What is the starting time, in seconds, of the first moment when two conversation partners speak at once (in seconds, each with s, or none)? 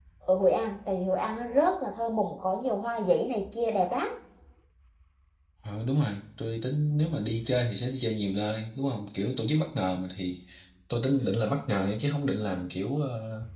none